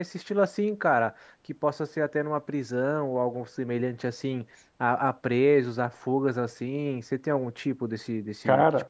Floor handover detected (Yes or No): Yes